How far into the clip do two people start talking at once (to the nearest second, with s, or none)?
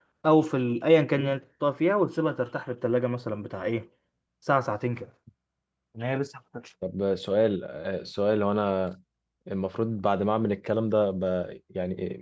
none